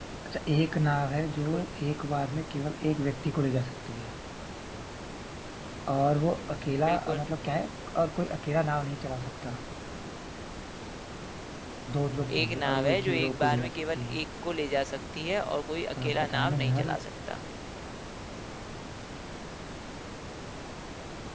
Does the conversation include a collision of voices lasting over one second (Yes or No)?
Yes